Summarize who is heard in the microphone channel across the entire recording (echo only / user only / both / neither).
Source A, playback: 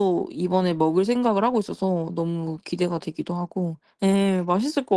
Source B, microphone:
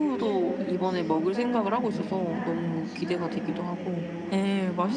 both